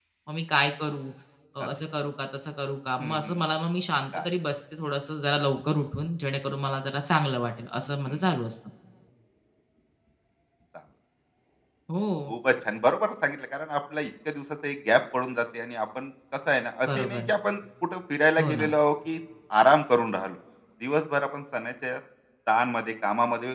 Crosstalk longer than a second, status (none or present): none